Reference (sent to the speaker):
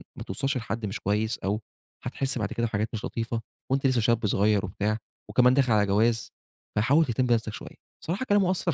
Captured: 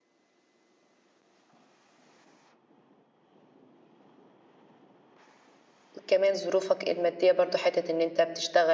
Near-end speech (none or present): present